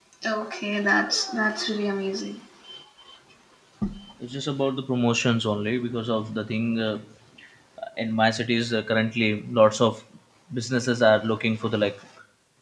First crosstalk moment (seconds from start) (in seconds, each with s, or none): none